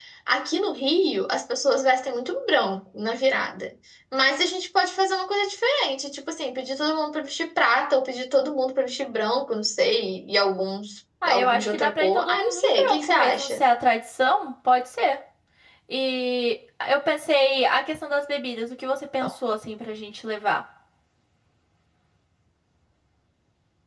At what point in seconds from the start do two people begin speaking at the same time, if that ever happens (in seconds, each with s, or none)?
11.2 s